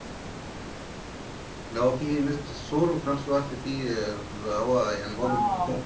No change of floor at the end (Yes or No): No